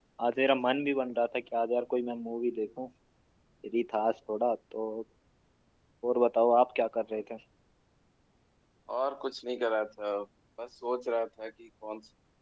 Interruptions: none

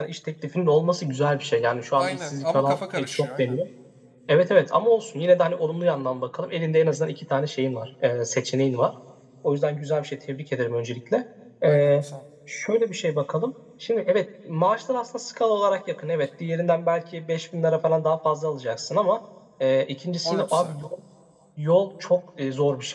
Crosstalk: present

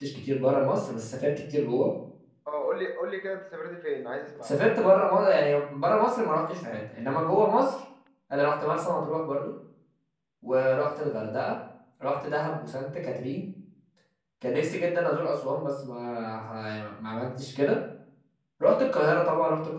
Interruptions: none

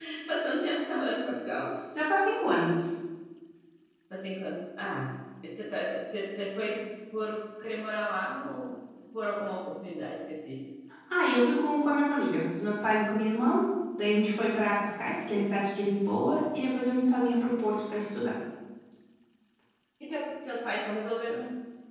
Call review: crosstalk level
none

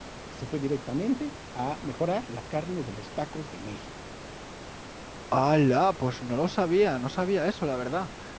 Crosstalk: none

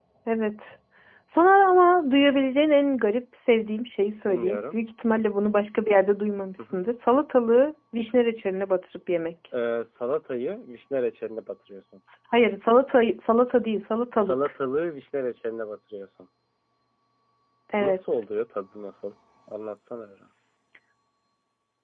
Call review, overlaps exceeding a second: none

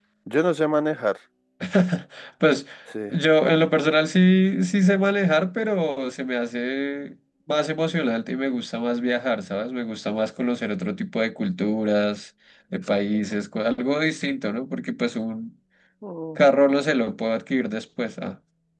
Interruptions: none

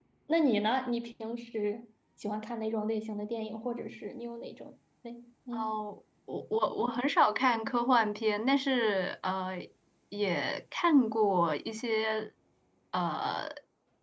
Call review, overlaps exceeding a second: none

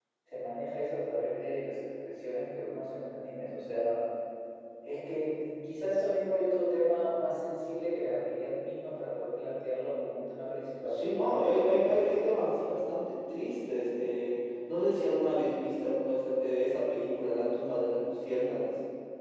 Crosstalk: present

